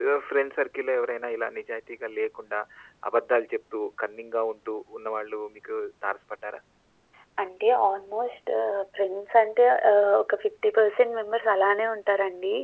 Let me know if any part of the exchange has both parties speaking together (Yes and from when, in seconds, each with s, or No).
No